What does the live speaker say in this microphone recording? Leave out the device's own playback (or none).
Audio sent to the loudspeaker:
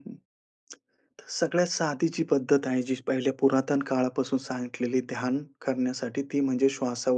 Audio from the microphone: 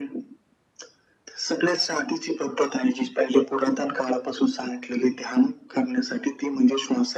none